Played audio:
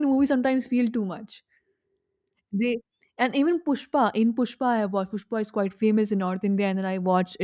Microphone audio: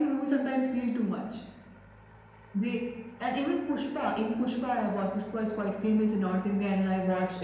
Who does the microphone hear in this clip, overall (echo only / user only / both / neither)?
echo only